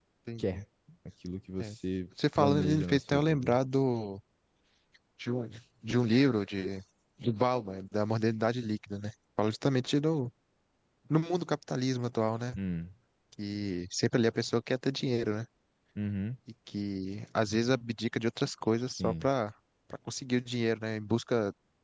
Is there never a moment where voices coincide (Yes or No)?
No